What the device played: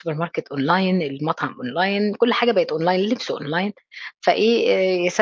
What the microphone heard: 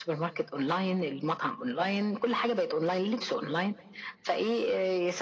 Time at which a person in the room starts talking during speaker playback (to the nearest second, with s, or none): none